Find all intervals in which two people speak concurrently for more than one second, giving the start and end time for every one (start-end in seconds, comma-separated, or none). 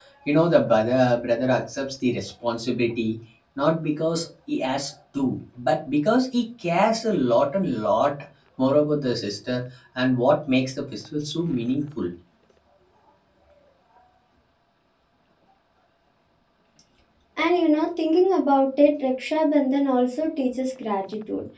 none